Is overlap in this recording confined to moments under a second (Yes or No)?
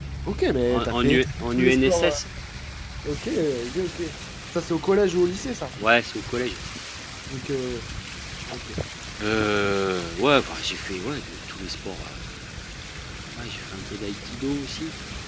No